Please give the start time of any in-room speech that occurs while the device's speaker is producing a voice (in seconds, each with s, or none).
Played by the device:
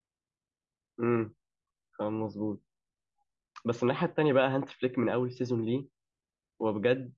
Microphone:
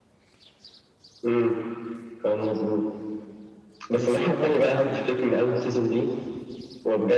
4.0 s